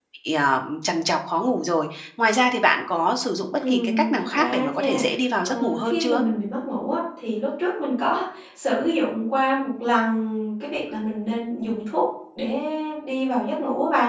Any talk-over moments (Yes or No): Yes